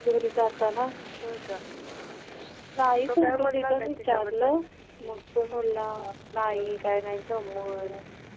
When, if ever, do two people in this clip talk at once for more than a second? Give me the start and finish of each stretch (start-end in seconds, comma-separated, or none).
3.1-4.5